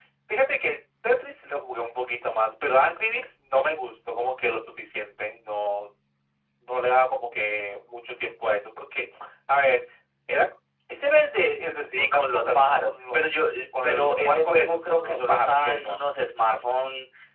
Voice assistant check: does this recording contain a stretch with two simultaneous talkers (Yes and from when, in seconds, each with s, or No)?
Yes, from 12.0 s